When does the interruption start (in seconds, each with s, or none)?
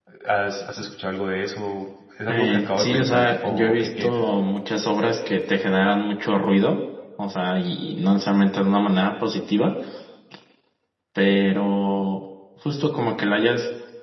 2.3 s